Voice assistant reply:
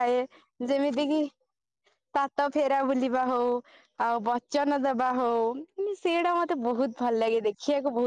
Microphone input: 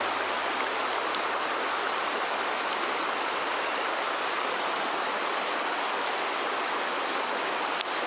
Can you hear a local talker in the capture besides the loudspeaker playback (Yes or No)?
No